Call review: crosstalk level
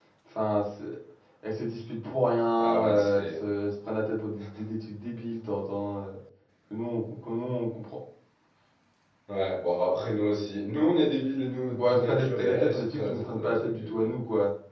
present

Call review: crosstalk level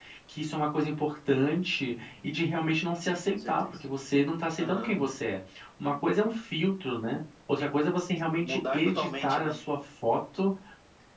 present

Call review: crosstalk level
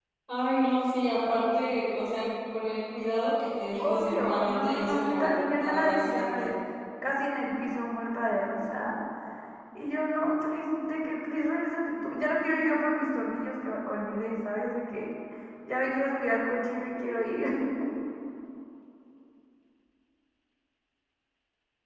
present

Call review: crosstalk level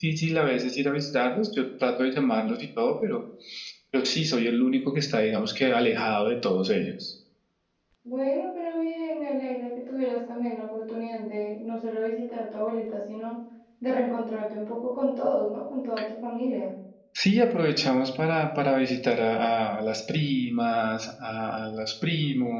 none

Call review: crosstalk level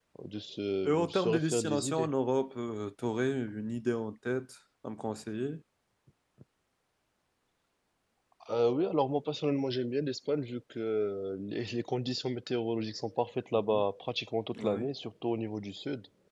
present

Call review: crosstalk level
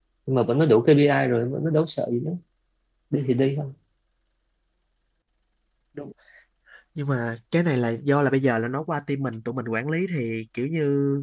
none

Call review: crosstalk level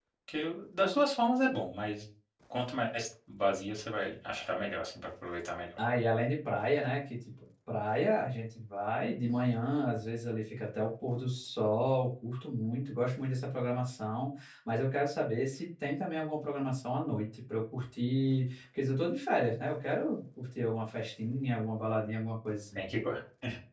none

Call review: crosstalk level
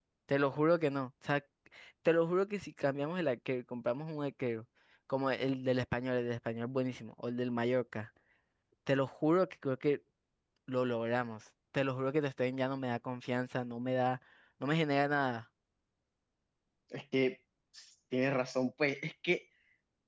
none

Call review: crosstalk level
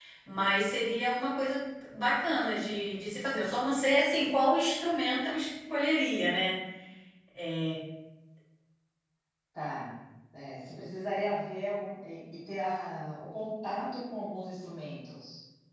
none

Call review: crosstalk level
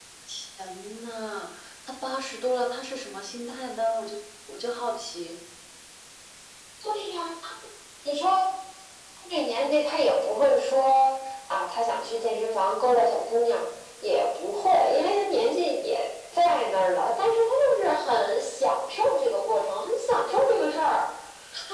none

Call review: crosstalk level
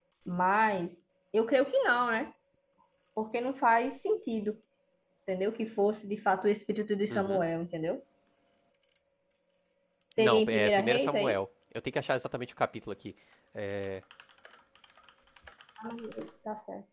present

